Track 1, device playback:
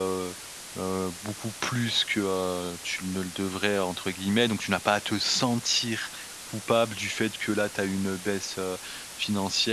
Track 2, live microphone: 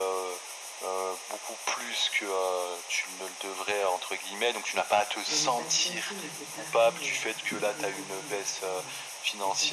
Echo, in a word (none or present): present